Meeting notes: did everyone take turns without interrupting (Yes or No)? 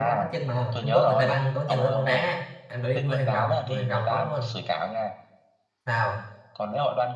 No